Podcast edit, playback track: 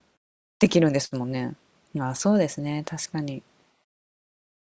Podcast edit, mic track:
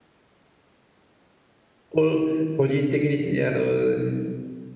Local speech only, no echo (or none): を個人的に、あの、